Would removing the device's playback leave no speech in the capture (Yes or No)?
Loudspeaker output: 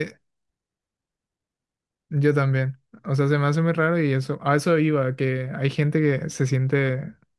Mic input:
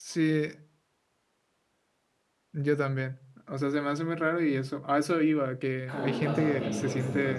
No